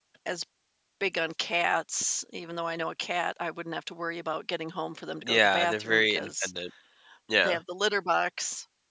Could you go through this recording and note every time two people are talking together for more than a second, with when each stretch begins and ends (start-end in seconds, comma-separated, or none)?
5.2-6.5